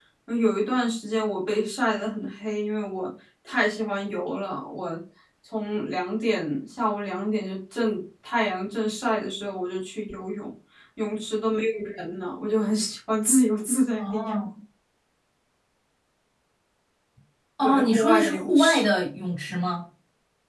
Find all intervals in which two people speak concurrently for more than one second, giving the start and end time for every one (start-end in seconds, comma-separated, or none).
17.6-18.9